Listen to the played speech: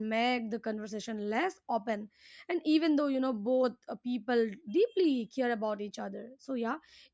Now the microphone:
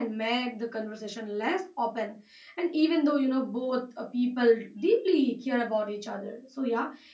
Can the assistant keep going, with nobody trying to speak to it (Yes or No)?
Yes